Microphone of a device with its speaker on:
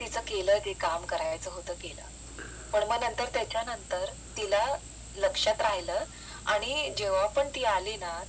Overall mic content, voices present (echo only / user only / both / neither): echo only